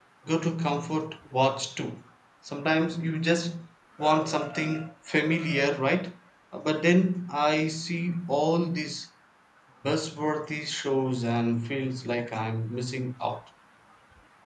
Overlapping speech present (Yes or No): No